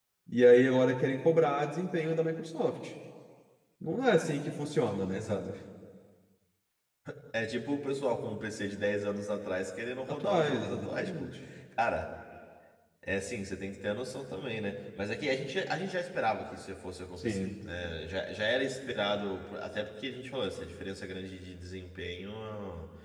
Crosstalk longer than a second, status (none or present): present